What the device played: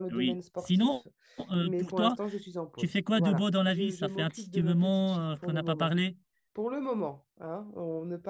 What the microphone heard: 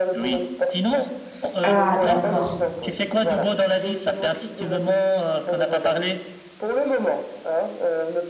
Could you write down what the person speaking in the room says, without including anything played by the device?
Ah, d'accord.

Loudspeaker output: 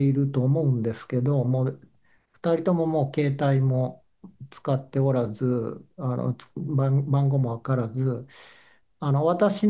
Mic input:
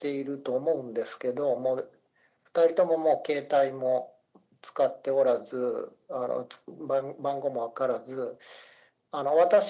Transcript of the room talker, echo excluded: none

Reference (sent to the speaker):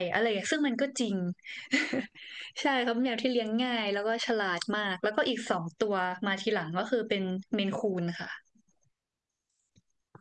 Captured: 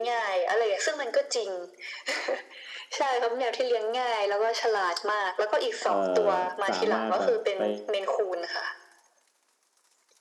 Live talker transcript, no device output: เออสามารถแบบไป

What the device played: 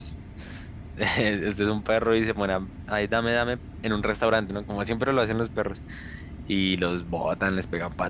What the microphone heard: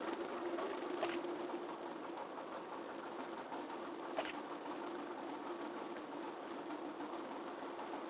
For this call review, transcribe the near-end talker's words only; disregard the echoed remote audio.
none

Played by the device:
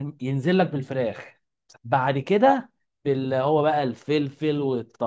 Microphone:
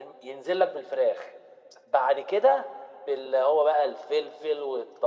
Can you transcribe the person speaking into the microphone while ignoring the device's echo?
none

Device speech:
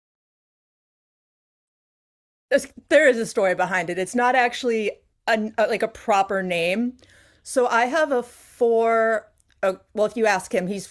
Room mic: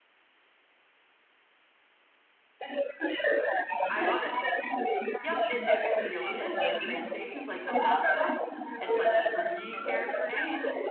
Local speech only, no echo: I love it. Yep, it, it, it really is like train stations, like Asakusa. It's like a three character name.

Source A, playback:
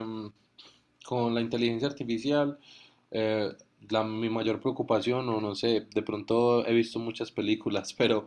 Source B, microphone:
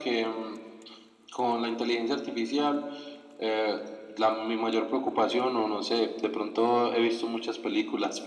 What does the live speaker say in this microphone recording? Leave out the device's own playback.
none

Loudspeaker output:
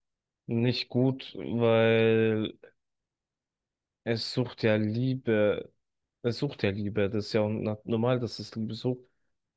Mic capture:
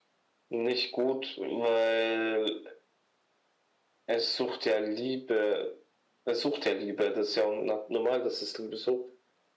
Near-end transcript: none

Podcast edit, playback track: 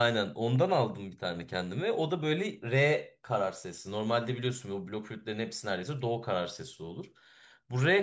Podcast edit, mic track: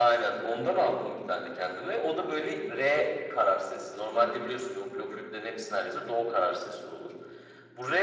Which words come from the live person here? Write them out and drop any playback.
none

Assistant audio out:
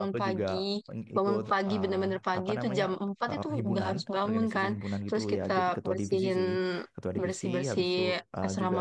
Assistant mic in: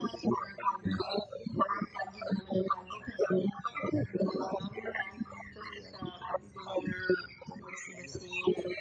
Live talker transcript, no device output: none

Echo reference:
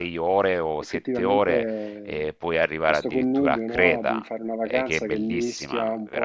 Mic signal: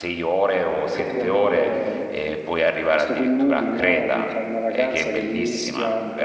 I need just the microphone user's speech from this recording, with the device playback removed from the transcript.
none

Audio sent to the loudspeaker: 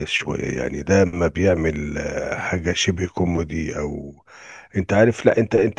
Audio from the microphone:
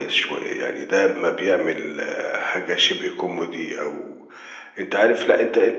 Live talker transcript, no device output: none

